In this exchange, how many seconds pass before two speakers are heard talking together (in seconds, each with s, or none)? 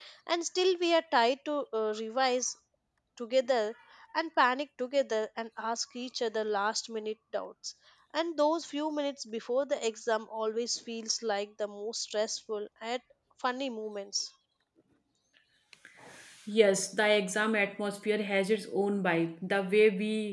none